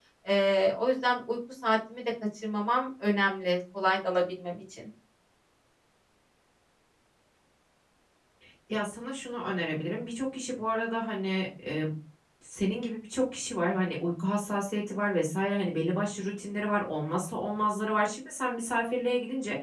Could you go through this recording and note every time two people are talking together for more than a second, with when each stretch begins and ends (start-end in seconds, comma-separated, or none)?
none